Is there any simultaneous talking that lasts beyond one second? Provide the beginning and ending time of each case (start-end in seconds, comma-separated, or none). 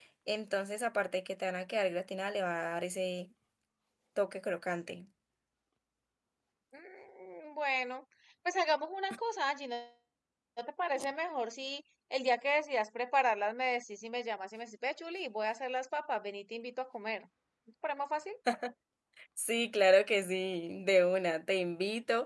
none